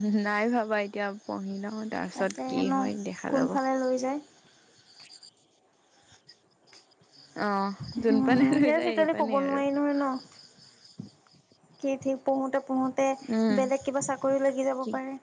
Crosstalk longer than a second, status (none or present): present